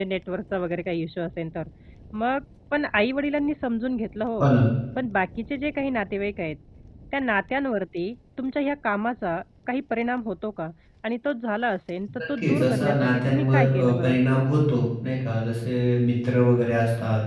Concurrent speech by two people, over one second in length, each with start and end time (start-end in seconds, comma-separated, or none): 12.4-14.2